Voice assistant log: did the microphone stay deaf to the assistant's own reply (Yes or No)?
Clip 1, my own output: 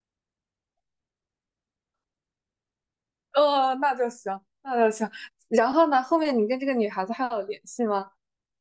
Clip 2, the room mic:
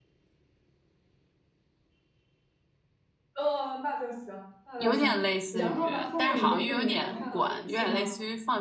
No